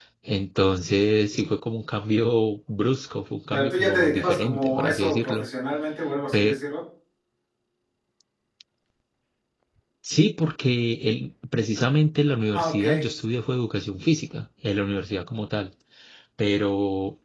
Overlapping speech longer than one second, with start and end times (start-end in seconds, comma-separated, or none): 3.5-5.5